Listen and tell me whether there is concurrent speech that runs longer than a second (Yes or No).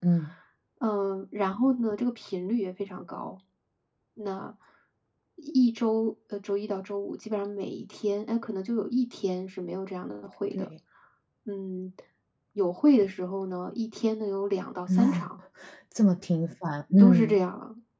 No